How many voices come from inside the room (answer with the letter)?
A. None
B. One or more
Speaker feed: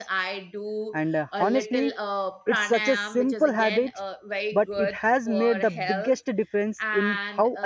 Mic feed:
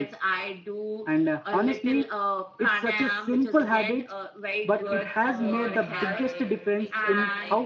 B